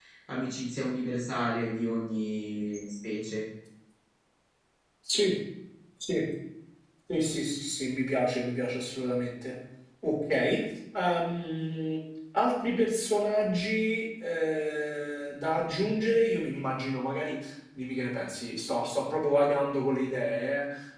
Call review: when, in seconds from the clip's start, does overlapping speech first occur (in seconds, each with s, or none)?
none